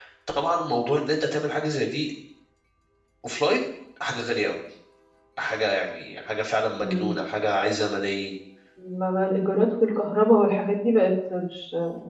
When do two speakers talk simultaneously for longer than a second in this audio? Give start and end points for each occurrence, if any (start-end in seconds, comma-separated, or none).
none